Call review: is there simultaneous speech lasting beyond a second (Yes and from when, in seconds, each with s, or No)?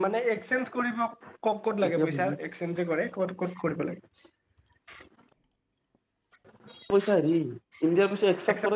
No